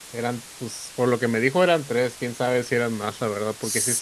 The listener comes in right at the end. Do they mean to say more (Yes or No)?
No